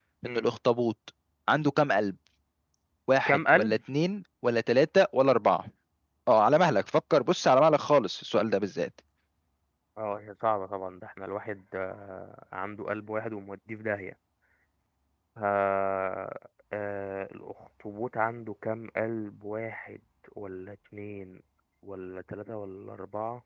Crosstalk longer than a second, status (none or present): none